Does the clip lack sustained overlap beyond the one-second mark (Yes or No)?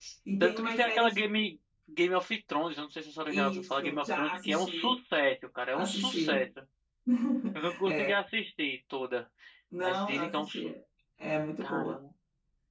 No